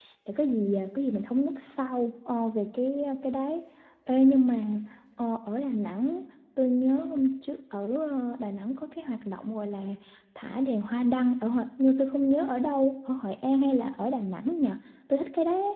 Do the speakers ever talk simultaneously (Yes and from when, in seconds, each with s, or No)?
No